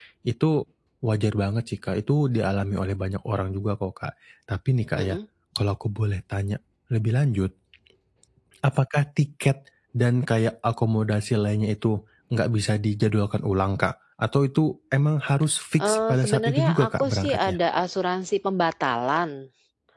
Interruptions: present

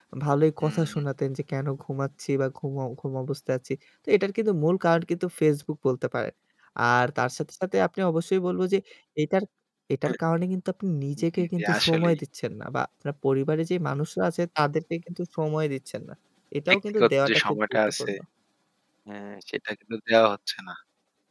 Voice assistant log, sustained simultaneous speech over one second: present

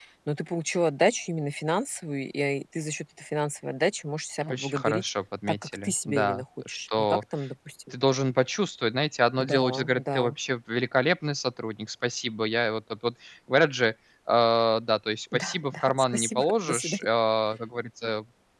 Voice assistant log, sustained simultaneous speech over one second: present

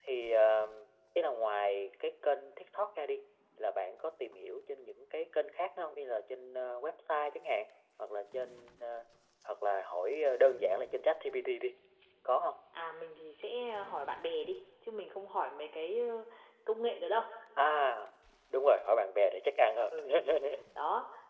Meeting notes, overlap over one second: none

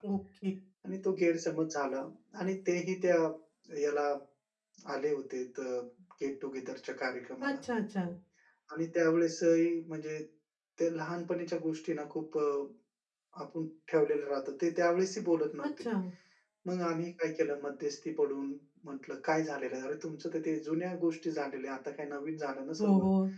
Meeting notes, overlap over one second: none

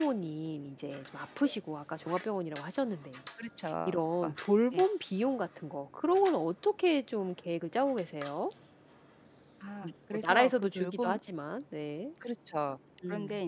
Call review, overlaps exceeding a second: present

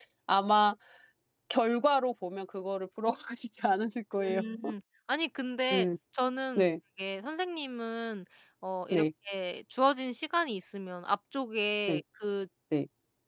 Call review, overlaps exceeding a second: none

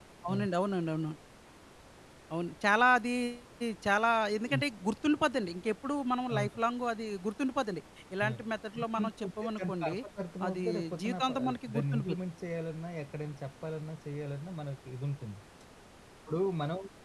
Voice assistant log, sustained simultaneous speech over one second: present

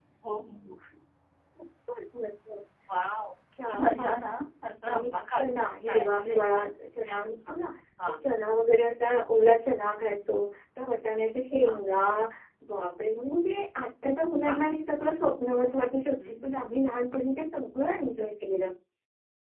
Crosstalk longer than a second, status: present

